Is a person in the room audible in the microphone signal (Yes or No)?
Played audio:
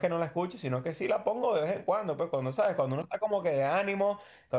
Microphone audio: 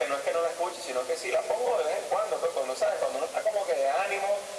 No